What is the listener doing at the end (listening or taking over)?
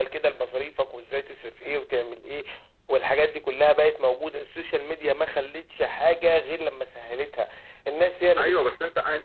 taking over